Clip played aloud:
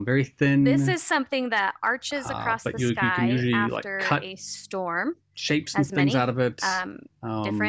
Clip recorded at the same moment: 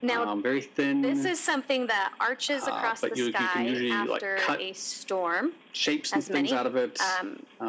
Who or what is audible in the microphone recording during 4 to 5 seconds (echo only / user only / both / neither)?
echo only